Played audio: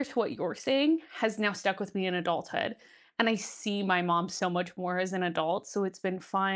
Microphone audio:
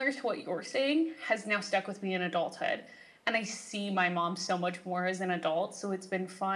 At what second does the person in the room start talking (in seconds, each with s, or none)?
none